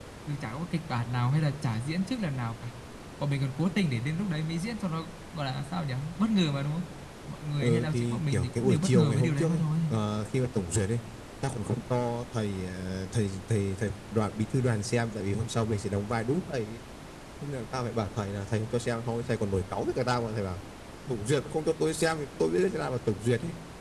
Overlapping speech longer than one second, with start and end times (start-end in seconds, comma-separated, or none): 7.6-9.7